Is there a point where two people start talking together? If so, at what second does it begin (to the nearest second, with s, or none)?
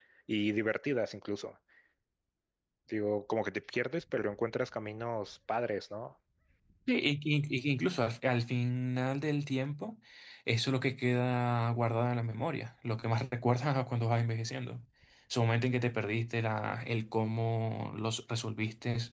none